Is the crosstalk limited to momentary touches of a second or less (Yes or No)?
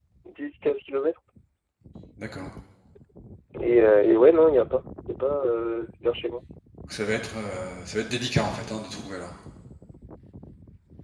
Yes